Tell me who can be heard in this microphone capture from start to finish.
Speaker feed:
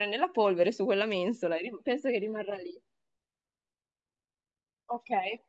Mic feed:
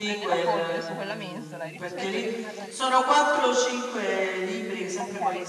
both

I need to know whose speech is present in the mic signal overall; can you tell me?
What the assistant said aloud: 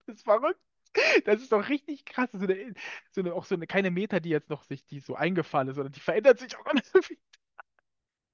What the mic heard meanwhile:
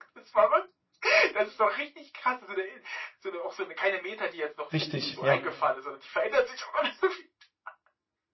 both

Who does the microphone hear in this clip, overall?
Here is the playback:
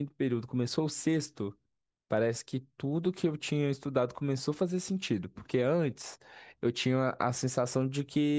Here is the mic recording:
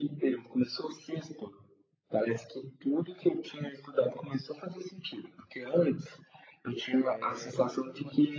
both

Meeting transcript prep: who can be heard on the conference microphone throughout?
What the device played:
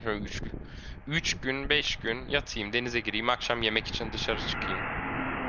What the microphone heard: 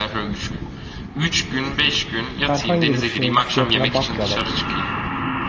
both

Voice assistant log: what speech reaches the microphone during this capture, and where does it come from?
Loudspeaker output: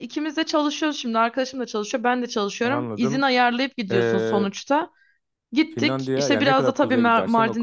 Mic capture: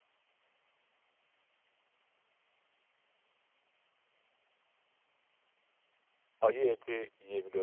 user only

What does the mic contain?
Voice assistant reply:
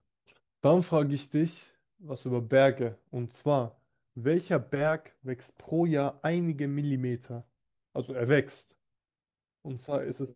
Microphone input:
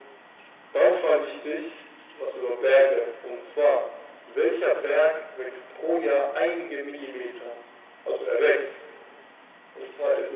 echo only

